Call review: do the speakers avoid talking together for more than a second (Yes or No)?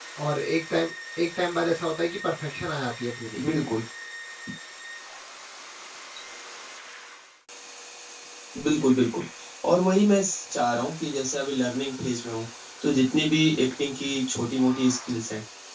Yes